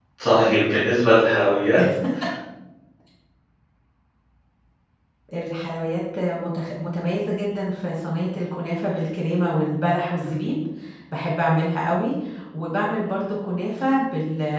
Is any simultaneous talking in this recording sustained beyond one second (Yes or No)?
No